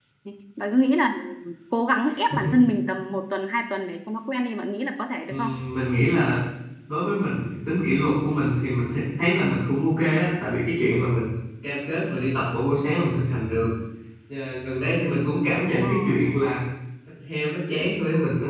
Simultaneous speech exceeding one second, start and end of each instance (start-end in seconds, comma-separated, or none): none